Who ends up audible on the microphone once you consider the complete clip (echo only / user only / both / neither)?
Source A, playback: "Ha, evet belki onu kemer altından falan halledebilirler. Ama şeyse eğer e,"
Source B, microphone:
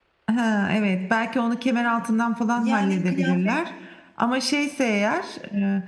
both